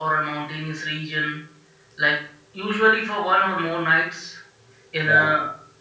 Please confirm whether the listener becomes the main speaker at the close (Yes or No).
No